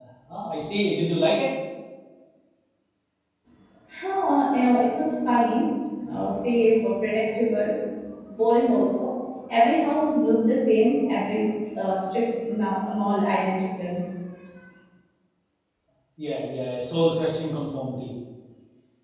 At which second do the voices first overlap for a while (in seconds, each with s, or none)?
none